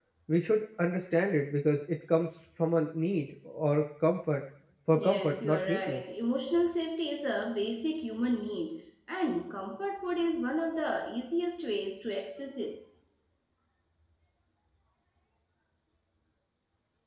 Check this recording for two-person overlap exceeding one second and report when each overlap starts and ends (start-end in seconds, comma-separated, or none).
4.9-6.1